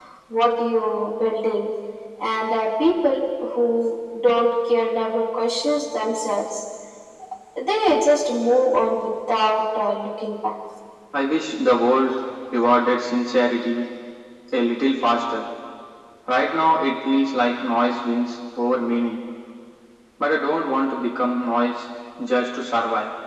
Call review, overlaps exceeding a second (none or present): none